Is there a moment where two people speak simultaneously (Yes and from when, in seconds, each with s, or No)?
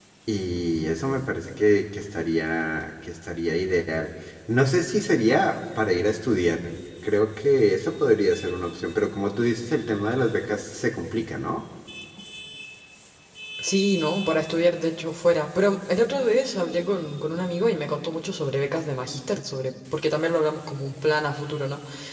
No